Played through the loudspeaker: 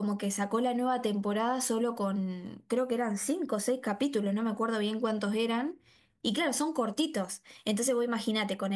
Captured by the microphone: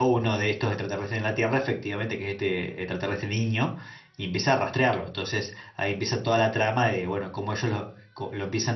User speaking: Yes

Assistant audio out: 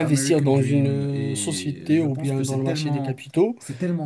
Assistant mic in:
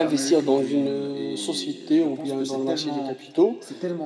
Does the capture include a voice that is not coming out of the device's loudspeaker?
No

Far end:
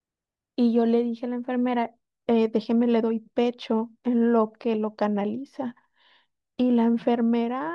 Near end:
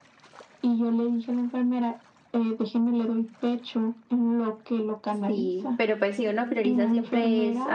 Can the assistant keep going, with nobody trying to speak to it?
No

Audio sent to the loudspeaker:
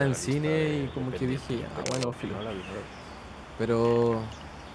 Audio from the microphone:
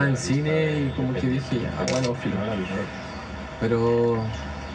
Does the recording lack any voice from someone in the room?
Yes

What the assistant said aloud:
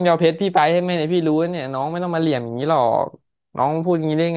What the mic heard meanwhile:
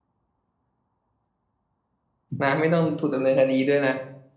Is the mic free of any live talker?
No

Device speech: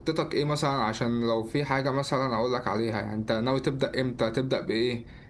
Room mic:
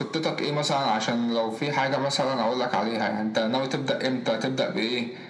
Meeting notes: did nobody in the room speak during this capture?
Yes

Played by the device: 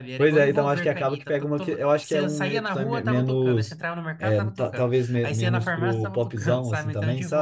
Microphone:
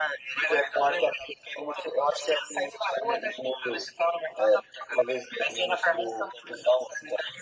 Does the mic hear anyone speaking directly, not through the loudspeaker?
No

